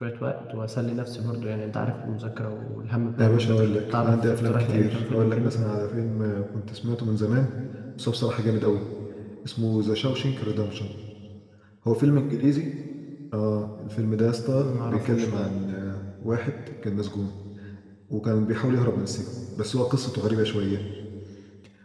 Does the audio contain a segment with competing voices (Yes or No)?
Yes